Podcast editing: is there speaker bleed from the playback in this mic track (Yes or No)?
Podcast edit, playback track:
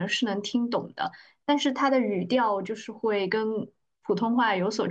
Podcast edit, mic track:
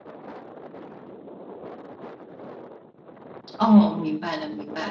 No